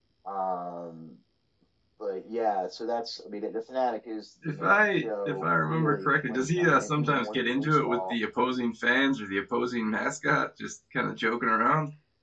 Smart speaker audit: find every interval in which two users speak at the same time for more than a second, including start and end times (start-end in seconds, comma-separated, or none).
4.5-8.1